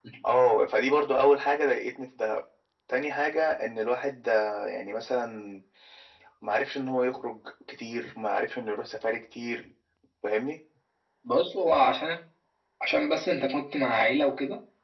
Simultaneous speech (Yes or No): No